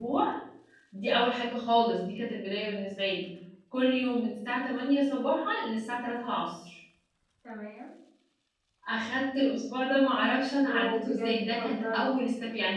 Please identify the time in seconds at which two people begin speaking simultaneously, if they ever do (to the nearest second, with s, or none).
11 s